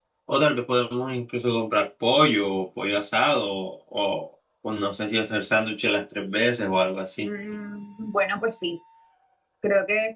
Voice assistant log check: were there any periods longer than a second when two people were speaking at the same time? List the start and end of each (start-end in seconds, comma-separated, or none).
none